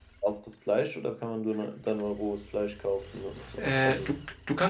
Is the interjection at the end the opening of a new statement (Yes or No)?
Yes